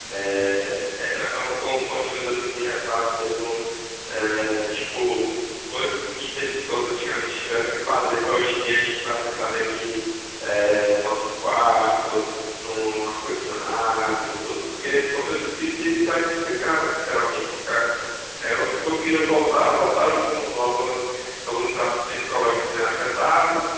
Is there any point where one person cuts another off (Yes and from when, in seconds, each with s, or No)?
No